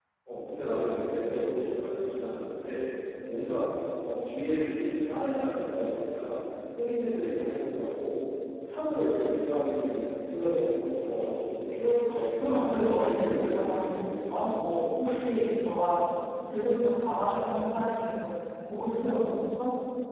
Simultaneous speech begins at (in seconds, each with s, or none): 12.4 s